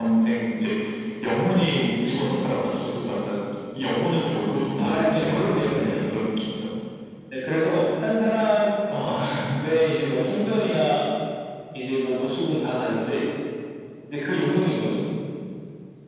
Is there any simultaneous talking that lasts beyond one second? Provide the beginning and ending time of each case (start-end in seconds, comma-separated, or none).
4.8-6.1